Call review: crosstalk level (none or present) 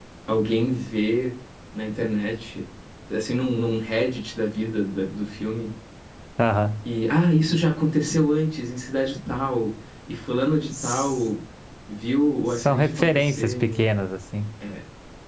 present